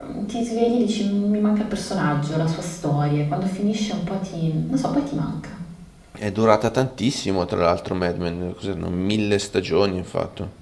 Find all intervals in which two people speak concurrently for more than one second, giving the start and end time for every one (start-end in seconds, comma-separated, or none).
none